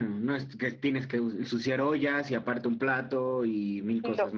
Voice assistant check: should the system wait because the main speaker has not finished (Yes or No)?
No